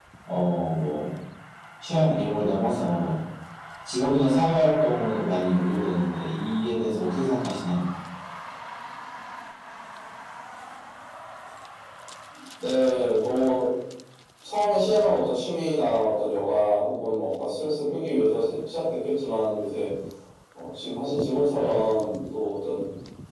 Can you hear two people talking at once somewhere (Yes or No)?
No